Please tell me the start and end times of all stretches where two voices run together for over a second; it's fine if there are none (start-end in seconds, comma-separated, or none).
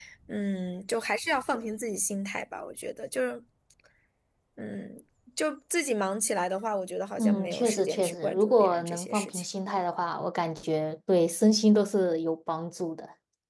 7.2-9.4